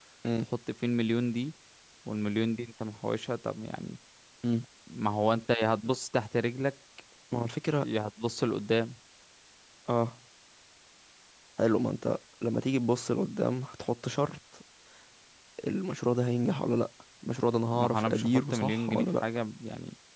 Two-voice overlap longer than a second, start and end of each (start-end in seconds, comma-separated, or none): 17.7-19.2